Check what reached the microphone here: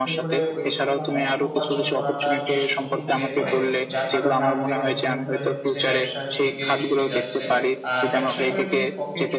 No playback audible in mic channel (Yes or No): No